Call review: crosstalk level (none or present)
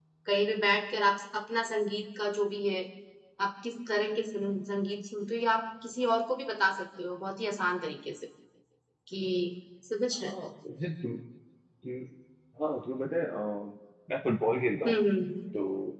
none